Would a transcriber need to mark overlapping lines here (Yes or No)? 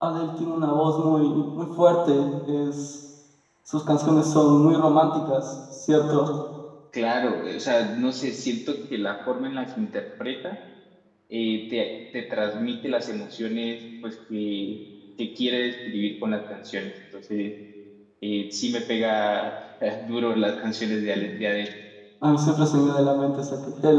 No